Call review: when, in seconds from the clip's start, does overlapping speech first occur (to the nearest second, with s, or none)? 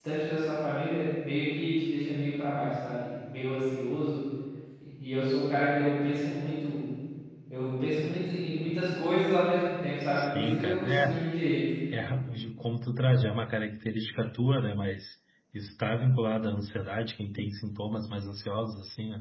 10 s